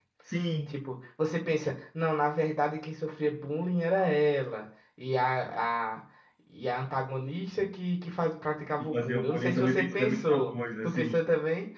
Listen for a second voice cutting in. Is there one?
Yes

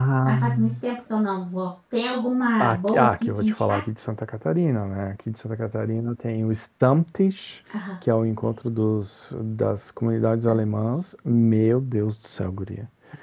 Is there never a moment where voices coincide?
No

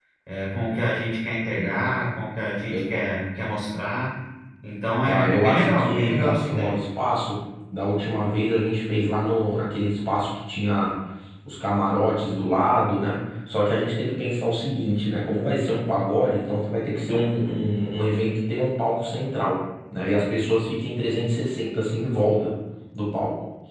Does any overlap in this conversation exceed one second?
Yes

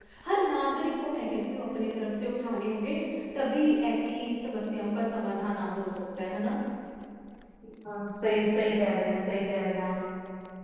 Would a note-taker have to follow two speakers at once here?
No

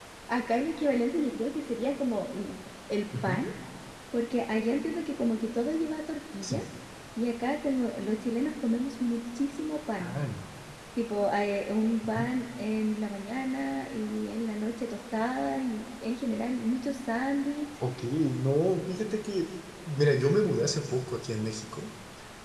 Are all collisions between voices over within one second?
Yes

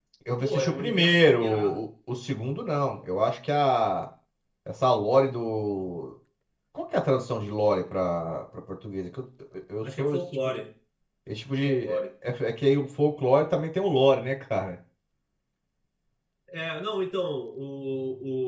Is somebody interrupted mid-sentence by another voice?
Yes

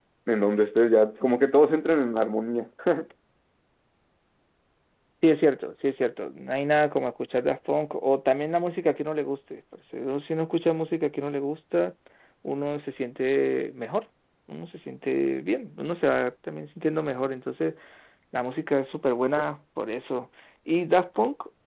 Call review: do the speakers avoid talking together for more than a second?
Yes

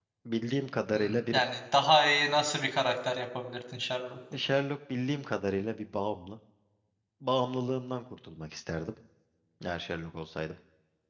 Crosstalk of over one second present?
No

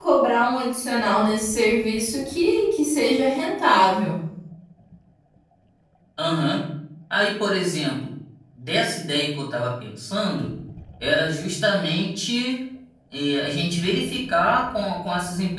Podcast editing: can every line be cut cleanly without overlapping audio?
Yes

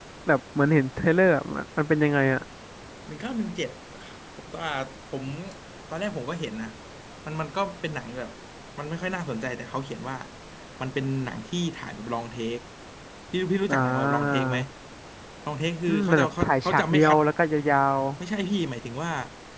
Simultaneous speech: Yes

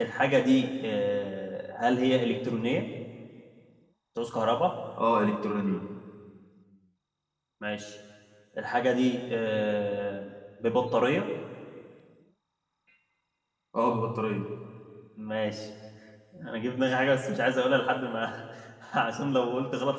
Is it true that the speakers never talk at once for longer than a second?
Yes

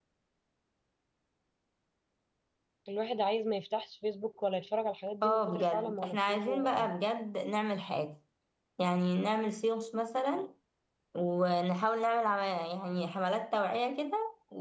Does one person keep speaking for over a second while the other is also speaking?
Yes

